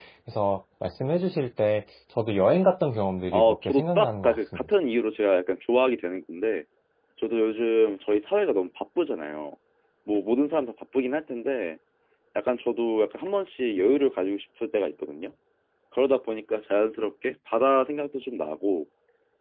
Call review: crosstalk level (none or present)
present